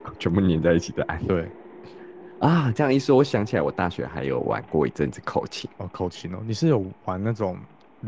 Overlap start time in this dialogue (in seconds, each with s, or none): none